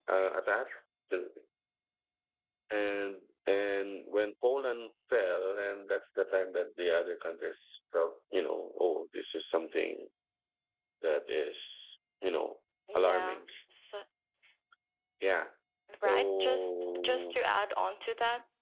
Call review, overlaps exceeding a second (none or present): present